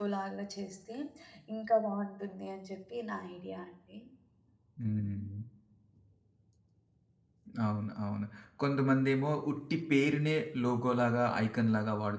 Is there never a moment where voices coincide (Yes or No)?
Yes